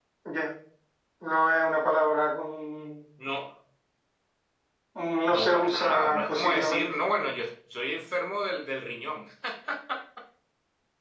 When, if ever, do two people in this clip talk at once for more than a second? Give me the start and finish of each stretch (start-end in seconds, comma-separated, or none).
5.3-6.8